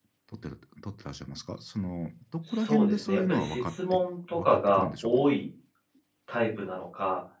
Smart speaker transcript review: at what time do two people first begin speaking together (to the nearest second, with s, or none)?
2 s